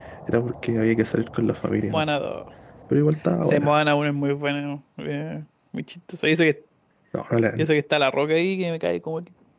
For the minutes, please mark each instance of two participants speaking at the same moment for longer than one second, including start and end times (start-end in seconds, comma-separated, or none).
none